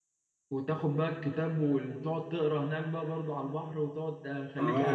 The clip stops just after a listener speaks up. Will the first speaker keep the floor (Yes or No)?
No